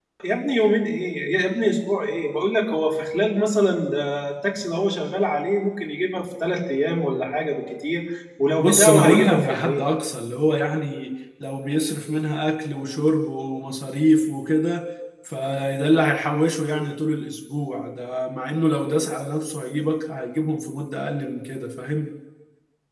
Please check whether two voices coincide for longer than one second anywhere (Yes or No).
Yes